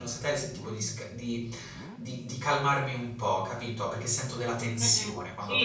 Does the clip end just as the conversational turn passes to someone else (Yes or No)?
Yes